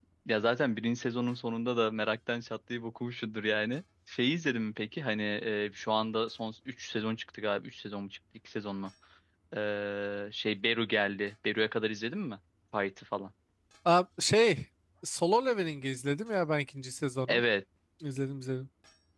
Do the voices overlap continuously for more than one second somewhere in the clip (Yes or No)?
No